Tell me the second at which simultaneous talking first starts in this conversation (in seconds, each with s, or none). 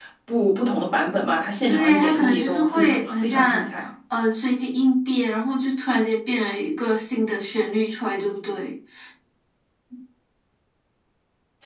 1.7 s